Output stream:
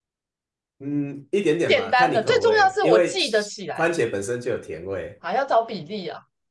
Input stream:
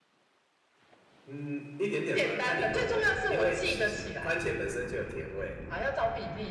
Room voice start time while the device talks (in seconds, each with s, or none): none